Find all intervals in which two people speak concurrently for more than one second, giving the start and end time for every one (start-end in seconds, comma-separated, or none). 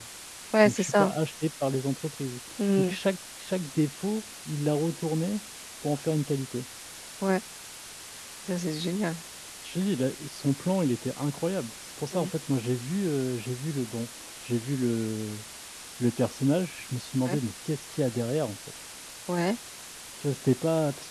none